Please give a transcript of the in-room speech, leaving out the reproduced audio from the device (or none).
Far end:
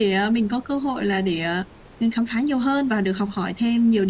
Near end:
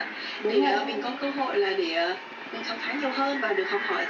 đúng vậy,